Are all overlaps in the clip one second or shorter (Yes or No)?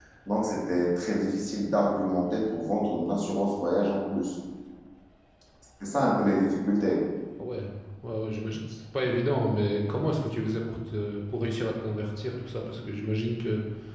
Yes